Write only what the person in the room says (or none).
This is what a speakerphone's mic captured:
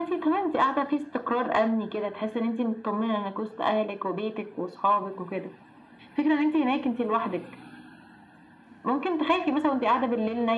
none